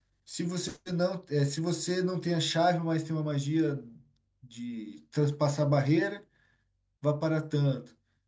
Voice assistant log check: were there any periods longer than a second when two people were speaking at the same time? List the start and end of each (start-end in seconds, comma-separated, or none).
none